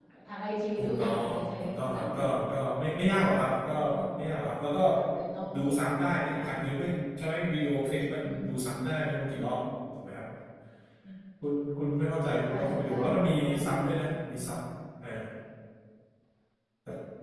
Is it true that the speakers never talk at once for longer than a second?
No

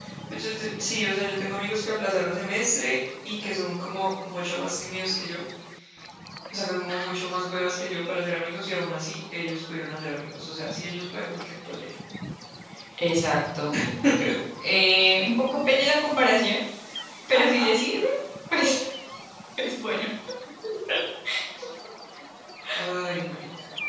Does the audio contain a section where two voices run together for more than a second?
No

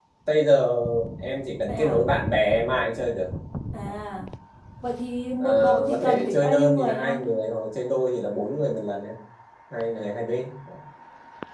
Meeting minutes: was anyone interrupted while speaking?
Yes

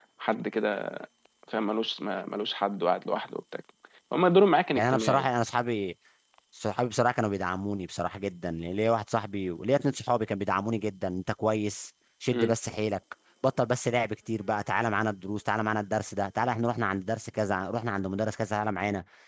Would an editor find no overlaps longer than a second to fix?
Yes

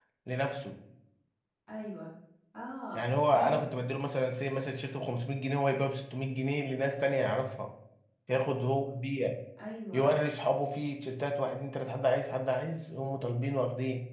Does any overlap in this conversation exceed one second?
No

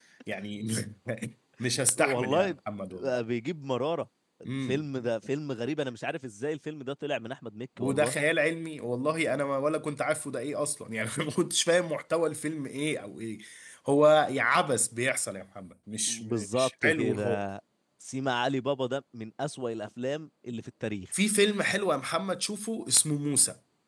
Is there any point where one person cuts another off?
Yes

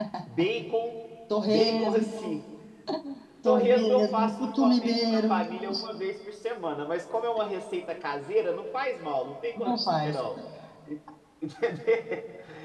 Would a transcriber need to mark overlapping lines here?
Yes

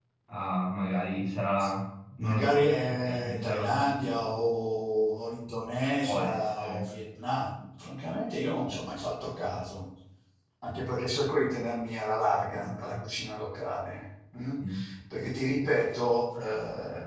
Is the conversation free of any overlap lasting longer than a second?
No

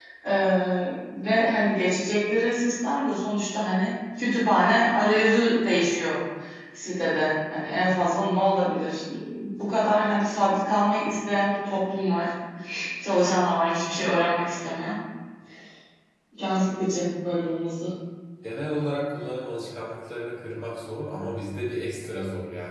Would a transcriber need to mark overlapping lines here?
No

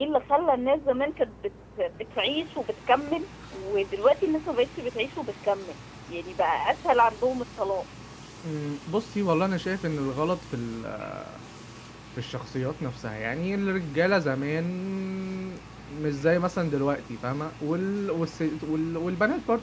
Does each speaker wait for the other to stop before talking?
Yes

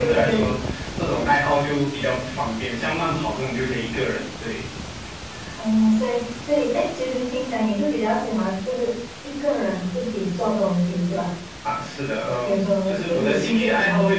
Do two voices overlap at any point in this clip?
Yes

